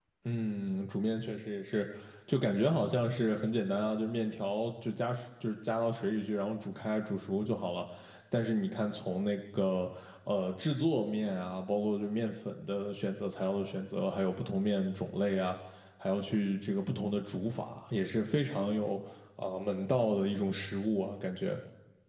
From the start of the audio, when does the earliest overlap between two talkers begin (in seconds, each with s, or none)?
none